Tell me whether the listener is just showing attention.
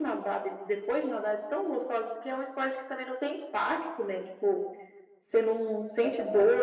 Yes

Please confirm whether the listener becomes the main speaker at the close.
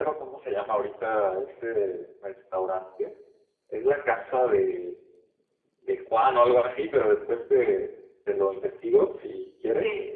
No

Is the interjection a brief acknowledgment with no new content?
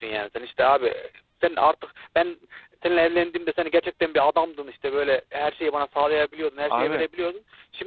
Yes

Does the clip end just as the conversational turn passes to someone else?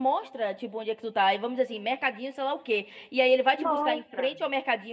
No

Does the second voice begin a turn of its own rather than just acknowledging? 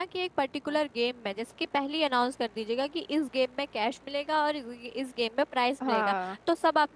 No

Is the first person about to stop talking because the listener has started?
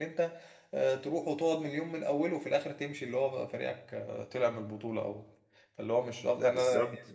Yes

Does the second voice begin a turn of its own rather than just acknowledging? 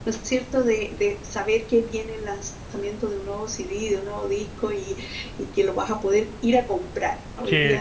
Yes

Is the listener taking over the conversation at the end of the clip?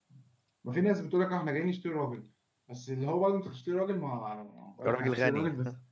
No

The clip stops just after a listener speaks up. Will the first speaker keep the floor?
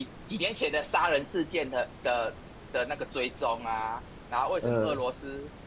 Yes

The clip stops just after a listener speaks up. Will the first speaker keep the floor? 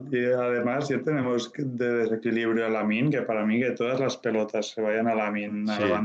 Yes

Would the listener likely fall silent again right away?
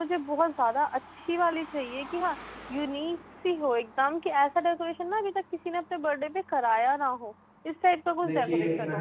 No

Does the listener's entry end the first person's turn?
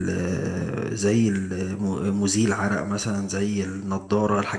No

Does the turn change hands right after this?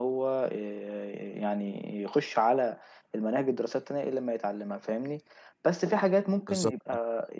No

